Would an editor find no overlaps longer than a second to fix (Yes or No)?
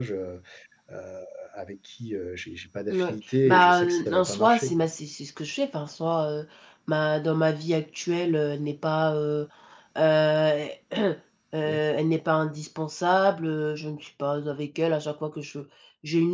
No